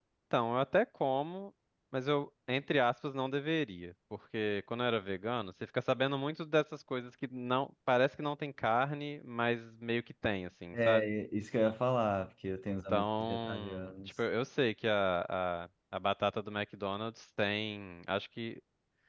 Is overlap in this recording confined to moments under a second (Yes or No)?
No